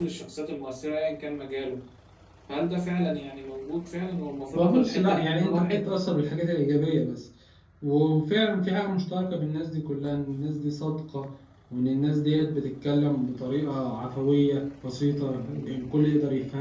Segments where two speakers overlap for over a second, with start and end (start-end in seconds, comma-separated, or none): 4.6-5.9